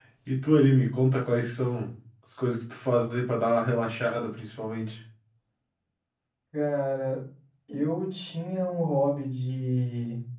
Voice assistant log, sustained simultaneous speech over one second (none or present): none